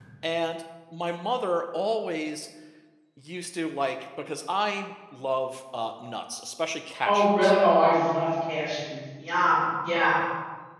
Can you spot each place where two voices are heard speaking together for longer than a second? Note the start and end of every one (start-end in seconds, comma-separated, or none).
none